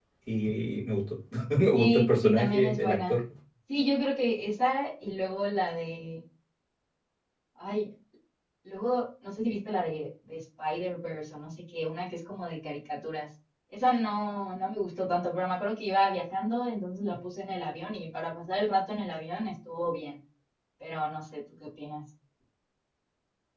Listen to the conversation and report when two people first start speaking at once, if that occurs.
1.7 s

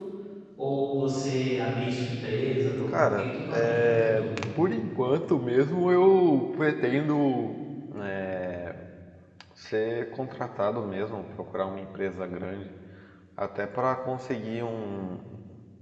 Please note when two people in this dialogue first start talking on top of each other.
2.9 s

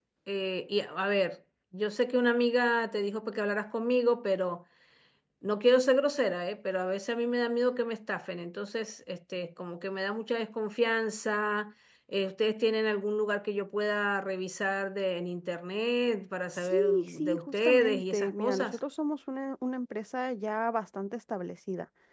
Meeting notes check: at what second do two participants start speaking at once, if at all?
16.5 s

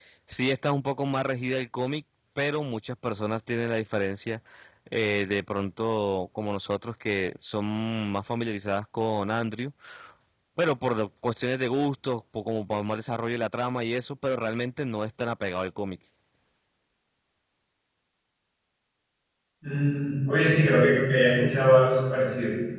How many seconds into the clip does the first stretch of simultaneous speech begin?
none

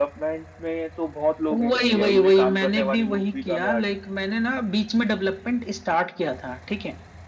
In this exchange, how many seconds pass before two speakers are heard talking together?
1.5 s

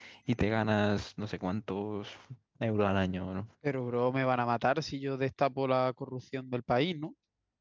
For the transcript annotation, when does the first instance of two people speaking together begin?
none

